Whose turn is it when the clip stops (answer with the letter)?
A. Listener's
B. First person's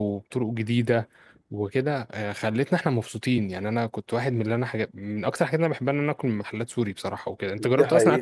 A